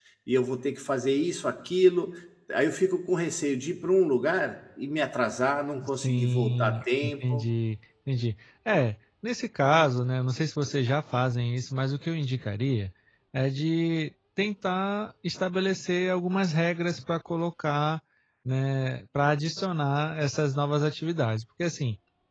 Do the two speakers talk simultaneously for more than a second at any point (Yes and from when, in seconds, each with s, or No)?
Yes, from 5.8 s